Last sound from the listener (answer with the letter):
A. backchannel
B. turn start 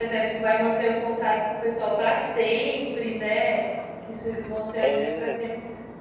A